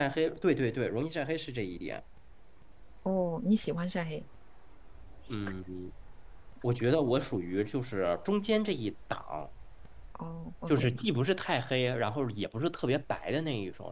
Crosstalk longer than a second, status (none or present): none